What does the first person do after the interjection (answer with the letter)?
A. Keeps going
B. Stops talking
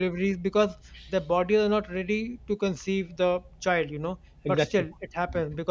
A